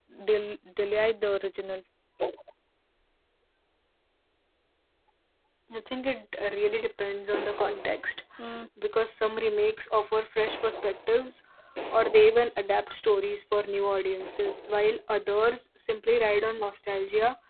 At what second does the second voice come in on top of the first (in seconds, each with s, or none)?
none